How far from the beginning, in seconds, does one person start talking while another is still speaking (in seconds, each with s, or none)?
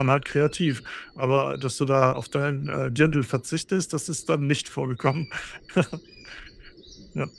none